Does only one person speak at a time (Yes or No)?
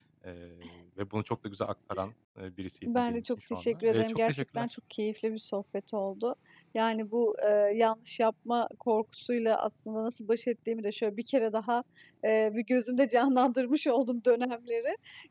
No